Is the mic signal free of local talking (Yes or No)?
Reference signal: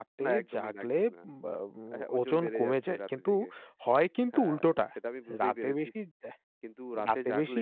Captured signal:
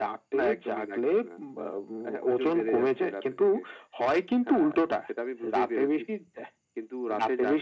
Yes